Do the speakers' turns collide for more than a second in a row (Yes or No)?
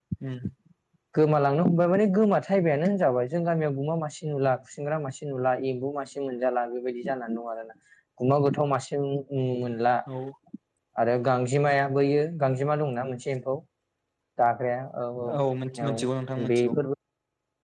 No